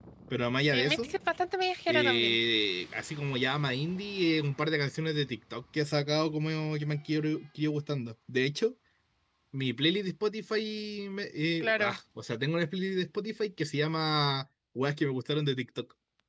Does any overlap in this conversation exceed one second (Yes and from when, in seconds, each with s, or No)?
No